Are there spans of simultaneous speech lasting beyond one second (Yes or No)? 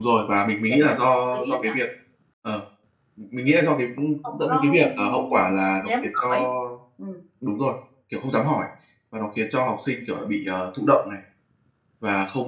Yes